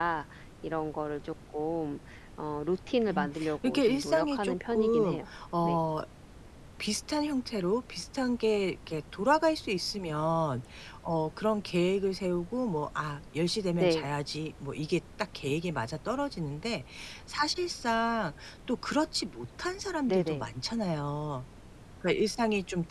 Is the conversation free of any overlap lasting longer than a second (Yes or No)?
No